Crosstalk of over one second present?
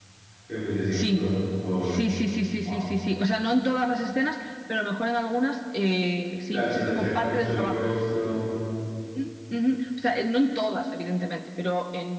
Yes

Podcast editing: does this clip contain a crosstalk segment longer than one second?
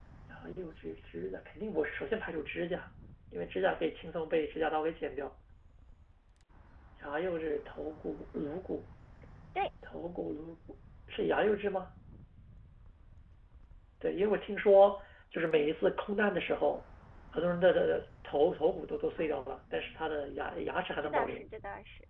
No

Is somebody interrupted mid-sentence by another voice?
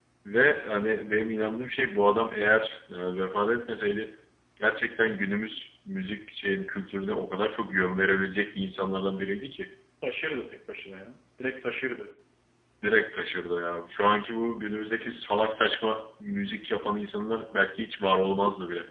No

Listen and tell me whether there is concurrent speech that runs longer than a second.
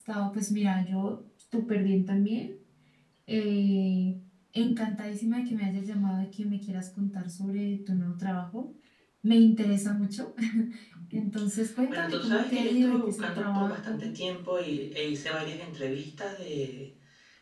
Yes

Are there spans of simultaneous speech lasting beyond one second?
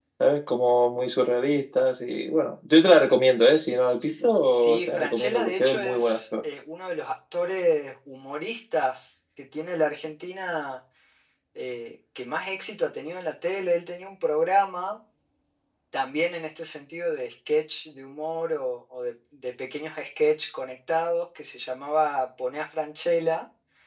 Yes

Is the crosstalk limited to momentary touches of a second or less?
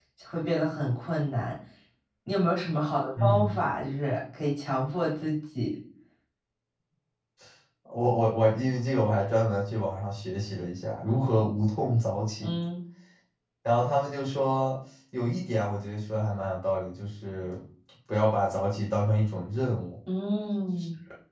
Yes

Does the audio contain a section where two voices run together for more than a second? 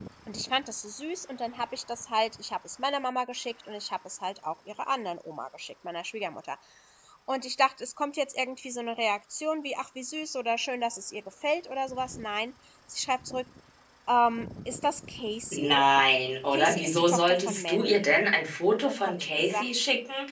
Yes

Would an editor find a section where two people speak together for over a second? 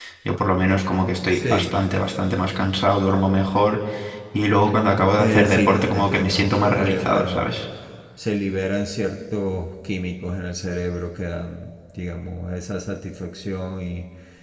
Yes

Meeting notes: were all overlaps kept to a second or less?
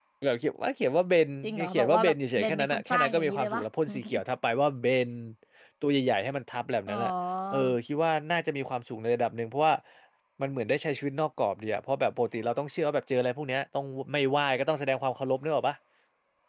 No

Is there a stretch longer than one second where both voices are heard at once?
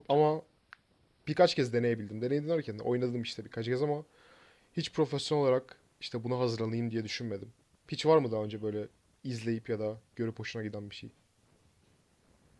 No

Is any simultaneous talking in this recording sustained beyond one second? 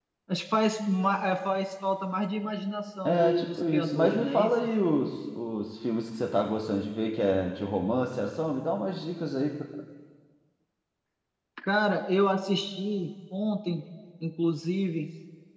Yes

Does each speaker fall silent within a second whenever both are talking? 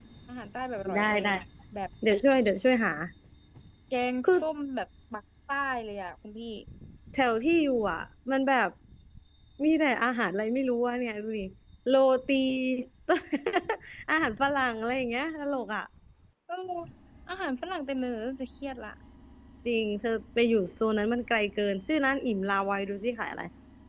Yes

